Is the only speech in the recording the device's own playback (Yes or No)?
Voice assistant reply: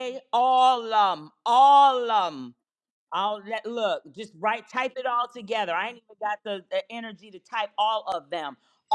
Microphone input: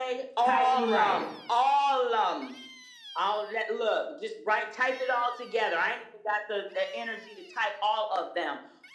No